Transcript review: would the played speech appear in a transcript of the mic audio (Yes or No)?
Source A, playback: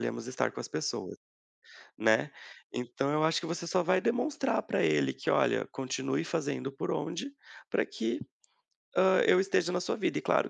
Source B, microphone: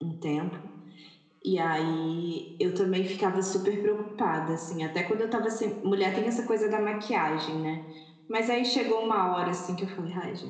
No